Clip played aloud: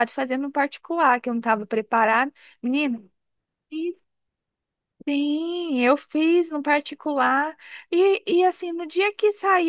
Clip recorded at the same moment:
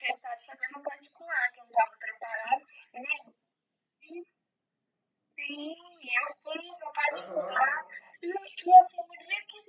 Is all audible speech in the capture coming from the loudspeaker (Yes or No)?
No